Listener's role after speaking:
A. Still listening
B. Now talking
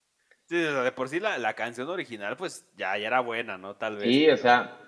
B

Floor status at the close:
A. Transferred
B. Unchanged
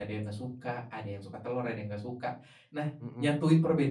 B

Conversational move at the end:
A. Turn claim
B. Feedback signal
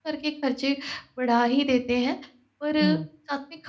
B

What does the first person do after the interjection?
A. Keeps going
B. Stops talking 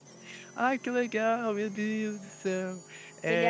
A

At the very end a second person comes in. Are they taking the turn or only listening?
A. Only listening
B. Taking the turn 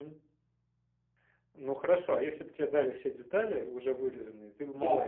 B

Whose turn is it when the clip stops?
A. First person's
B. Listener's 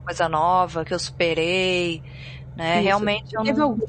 B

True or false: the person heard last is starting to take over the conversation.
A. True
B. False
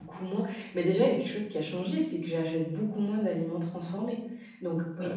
B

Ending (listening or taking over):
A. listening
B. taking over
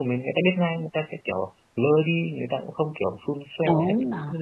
B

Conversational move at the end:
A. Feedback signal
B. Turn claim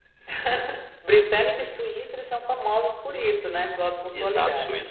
B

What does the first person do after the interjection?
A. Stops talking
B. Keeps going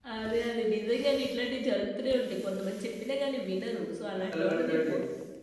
B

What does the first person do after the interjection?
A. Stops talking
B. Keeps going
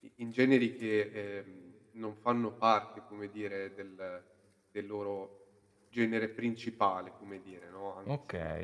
A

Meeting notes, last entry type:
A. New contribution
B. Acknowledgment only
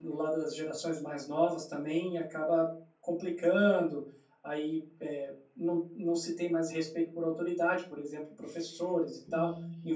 A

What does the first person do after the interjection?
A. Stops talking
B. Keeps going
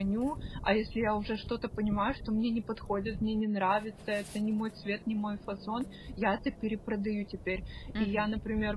B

